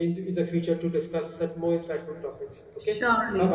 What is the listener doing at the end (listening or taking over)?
taking over